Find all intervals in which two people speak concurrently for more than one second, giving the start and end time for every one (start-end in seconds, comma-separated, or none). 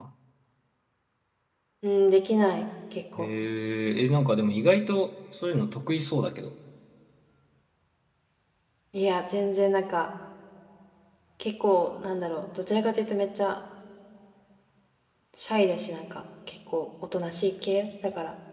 none